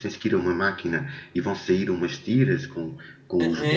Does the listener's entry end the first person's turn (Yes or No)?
Yes